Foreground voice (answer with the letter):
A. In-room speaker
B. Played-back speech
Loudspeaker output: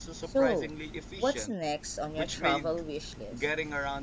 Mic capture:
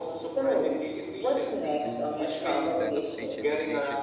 B